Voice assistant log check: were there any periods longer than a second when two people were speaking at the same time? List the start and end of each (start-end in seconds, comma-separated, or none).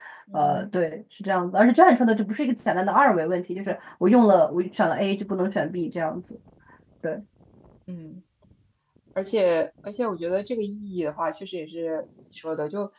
none